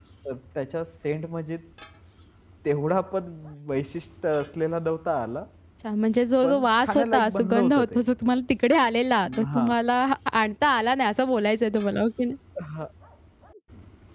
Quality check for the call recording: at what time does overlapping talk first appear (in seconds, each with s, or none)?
6.4 s